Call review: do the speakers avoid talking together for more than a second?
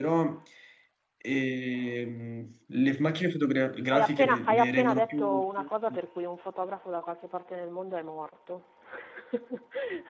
No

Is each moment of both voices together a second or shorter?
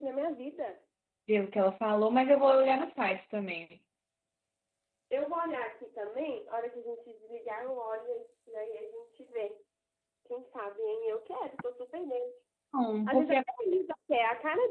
Yes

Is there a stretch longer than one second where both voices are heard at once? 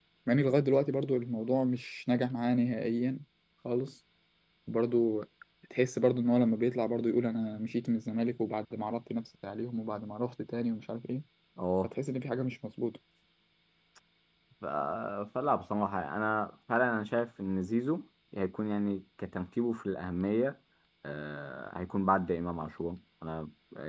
No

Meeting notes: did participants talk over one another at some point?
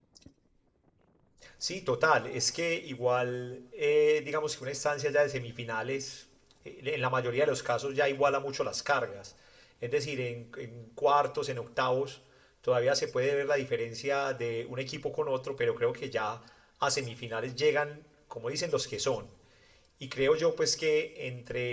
No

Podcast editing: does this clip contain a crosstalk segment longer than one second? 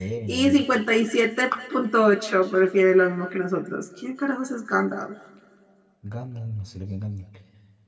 No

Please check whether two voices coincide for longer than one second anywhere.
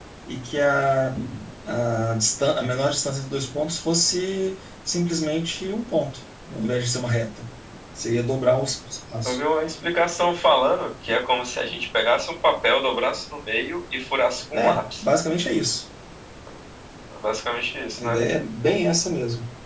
No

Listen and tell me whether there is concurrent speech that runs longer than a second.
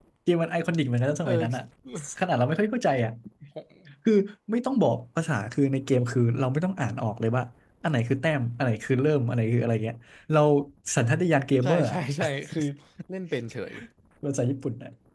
No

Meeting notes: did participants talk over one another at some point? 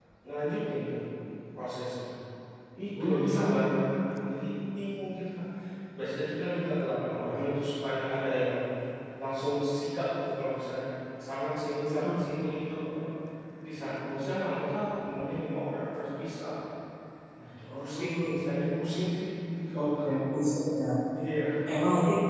Yes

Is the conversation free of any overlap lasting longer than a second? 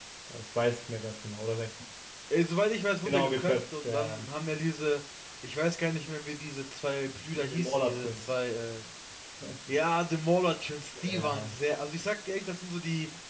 No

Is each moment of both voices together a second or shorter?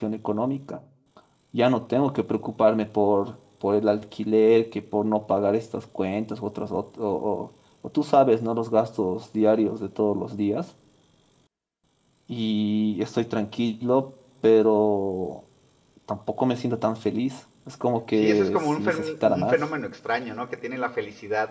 No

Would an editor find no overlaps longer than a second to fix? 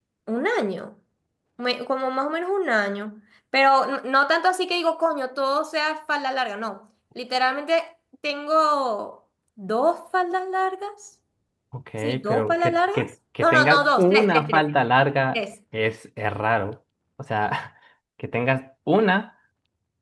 No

